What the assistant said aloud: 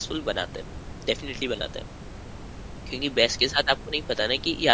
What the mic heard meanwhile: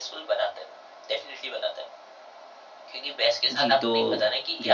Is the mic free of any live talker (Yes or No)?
No